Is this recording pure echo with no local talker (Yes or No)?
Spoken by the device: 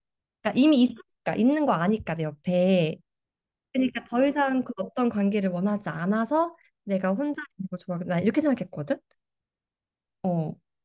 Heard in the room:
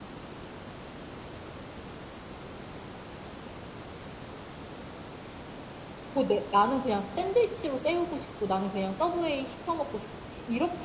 No